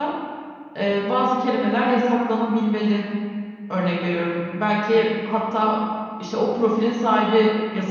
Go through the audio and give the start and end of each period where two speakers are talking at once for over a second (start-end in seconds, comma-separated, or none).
none